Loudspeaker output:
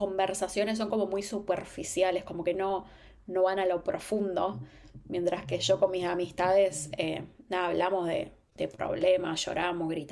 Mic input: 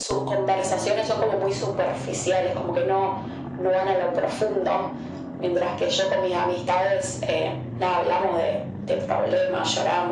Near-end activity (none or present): none